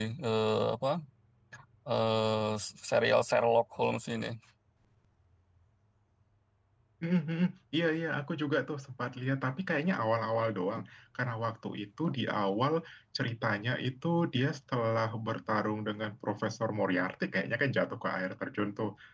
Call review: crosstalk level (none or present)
none